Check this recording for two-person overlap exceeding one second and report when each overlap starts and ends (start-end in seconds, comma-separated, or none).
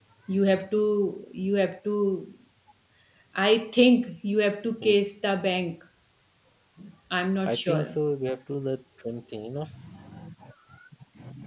none